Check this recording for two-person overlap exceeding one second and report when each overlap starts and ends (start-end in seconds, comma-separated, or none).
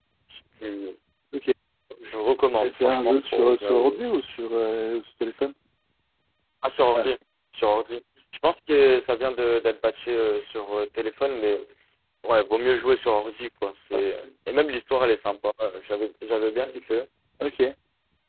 2.6-4.0